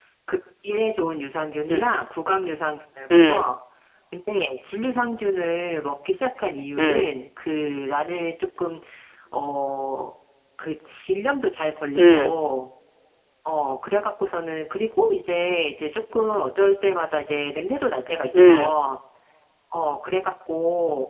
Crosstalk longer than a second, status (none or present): none